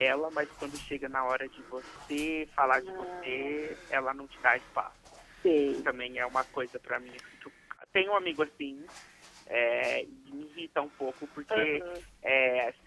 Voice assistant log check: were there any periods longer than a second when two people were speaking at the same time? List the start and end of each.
2.6-3.9

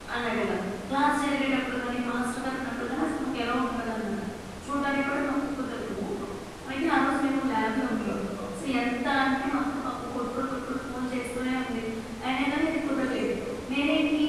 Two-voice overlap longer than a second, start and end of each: none

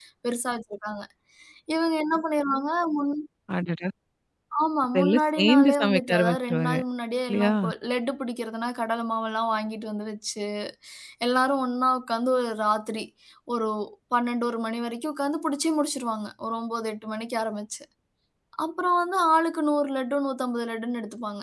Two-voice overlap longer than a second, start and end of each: 4.9-6.8

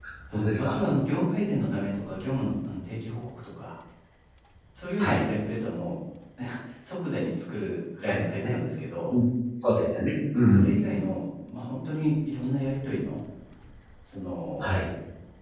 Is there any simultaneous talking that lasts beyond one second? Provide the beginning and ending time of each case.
none

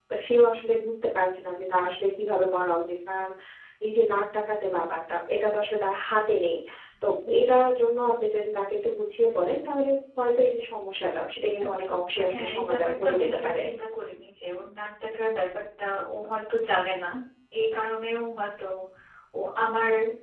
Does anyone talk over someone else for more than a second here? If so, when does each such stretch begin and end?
11.6-13.6

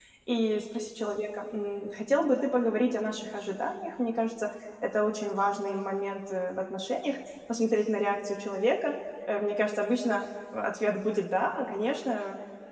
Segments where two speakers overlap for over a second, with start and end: none

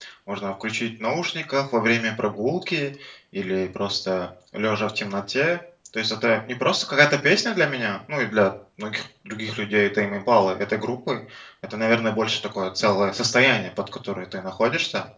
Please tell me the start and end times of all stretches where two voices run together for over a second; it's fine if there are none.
none

